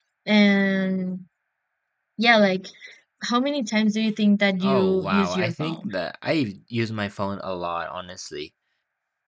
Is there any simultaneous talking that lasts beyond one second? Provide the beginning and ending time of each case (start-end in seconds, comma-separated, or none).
4.6-5.8